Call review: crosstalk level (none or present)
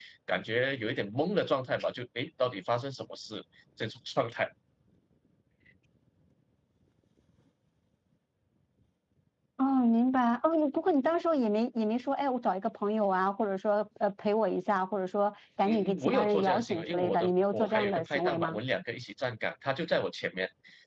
present